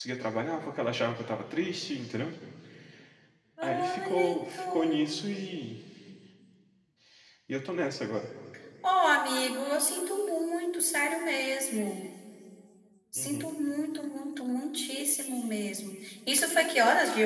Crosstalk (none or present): present